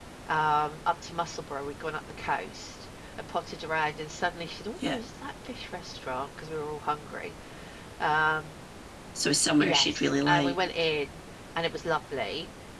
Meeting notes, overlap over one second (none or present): present